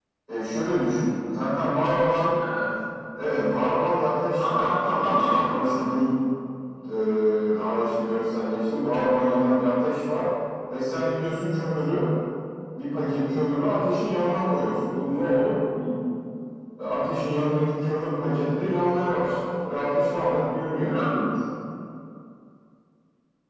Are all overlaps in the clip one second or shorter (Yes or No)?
No